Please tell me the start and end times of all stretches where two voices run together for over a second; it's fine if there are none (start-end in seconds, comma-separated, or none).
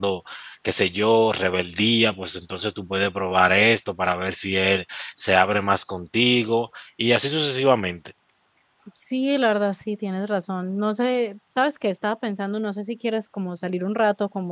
none